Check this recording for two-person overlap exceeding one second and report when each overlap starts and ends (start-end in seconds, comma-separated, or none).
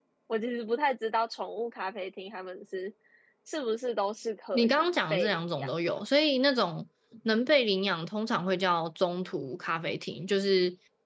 4.5-6.0